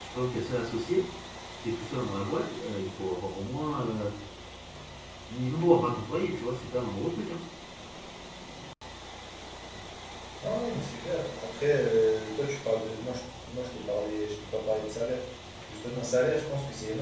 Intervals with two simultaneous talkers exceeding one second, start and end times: none

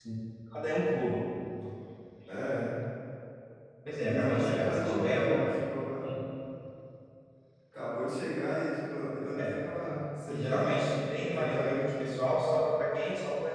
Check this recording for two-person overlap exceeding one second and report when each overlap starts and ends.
4.0-5.6, 10.3-12.2

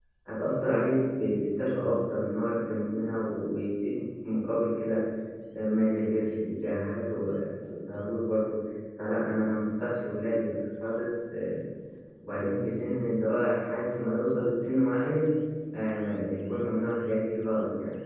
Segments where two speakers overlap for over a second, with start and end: none

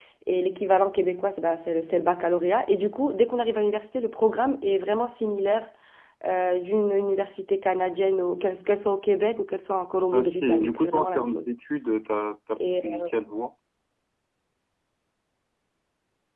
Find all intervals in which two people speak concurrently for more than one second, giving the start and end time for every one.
10.1-11.5

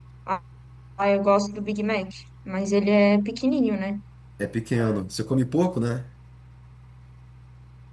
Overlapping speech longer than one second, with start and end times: none

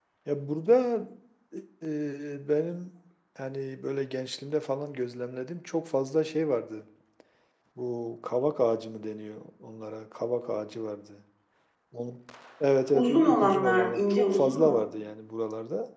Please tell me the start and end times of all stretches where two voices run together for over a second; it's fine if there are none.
12.9-14.8

